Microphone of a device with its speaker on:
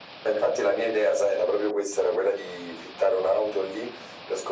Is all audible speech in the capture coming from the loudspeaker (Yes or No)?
Yes